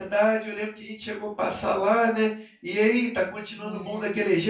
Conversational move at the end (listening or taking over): taking over